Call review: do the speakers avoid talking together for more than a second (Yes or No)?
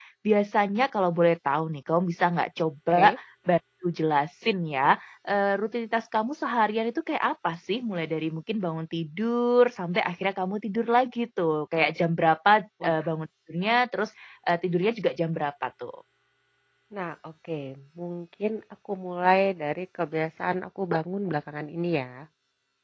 Yes